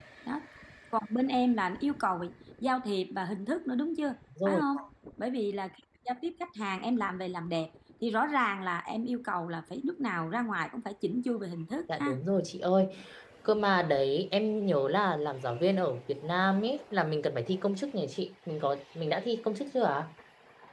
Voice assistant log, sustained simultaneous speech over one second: none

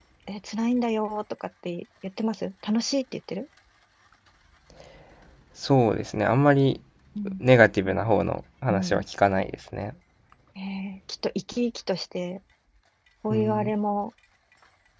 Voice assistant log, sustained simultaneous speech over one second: none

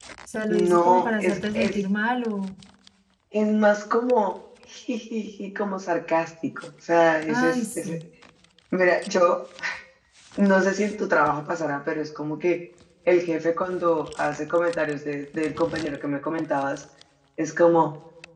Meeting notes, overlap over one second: present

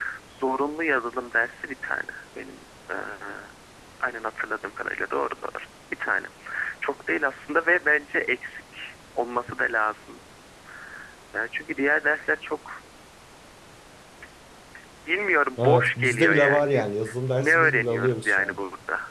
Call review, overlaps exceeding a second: present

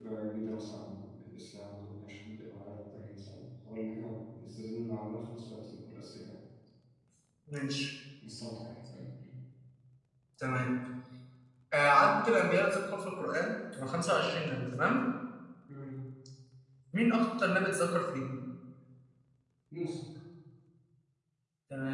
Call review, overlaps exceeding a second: none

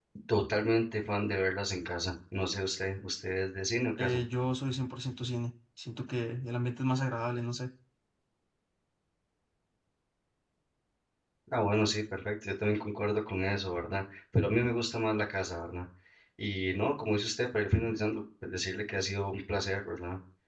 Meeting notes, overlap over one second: none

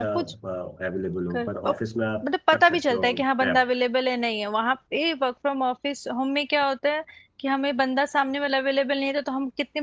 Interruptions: present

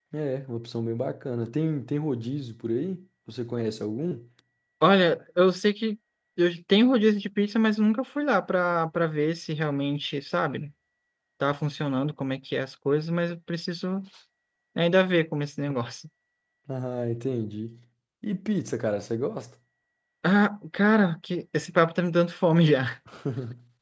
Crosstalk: none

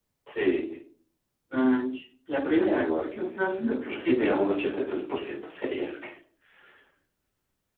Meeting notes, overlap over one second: present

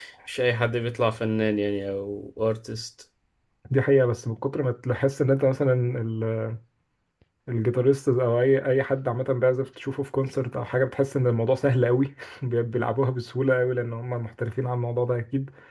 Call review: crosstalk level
none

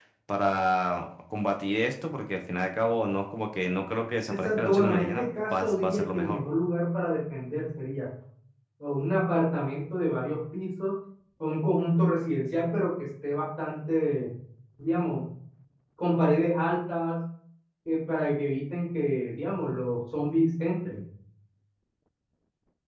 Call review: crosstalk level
present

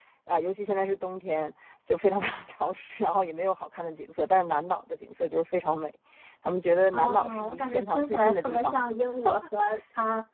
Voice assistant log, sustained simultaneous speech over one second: present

